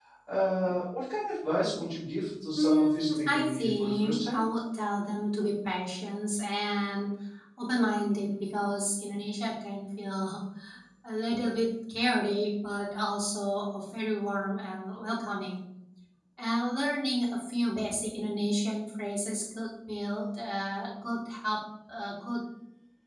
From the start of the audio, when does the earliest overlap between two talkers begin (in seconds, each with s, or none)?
2.5 s